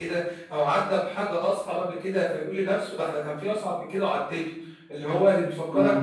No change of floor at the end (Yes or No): Yes